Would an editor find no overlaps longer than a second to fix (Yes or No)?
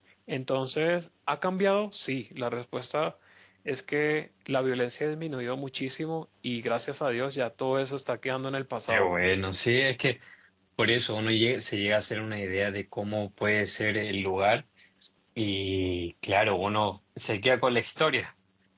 Yes